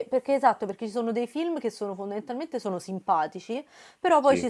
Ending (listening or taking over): listening